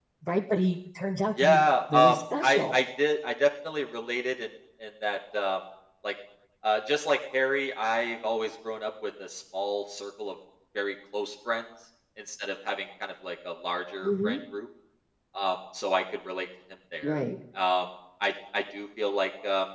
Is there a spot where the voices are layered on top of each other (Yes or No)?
Yes